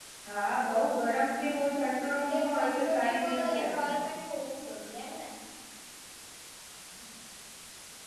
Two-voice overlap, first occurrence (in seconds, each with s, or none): 2.2 s